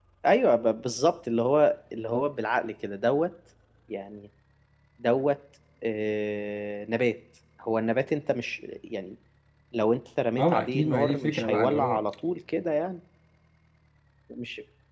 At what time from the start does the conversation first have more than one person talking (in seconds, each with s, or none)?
10.4 s